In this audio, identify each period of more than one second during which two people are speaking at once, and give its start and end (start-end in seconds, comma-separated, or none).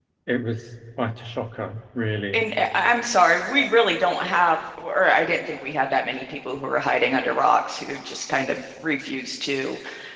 none